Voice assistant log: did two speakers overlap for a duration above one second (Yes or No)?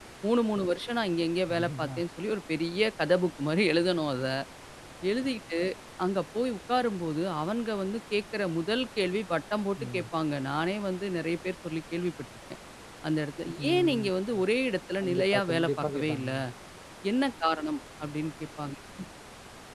Yes